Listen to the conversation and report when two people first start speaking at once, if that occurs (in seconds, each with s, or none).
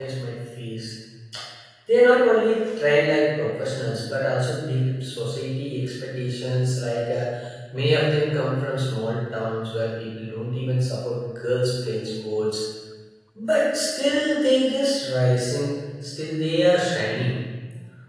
none